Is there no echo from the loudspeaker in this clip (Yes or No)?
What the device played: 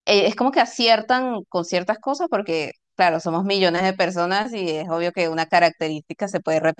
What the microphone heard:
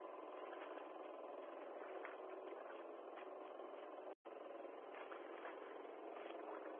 Yes